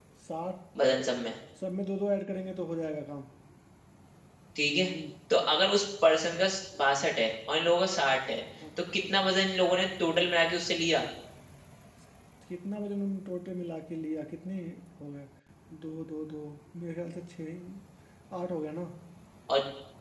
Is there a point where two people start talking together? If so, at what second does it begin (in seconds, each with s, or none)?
none